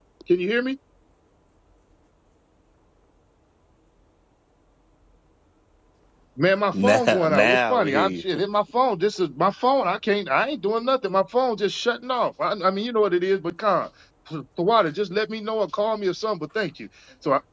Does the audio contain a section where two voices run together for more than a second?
Yes, from 6.8 s

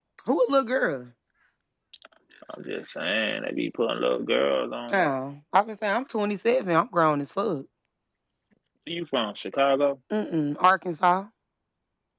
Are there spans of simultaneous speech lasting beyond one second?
No

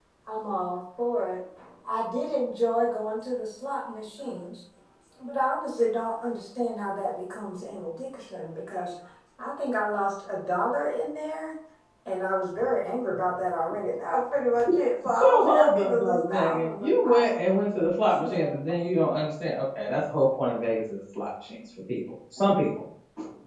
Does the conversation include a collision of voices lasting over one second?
Yes, from 15.2 s

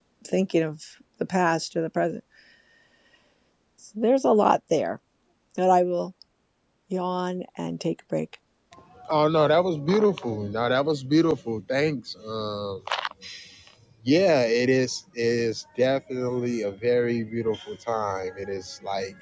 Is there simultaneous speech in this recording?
No

